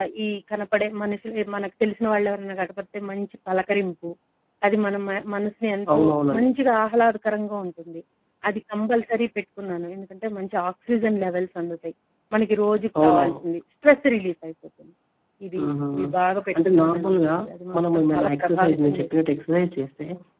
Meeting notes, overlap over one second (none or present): present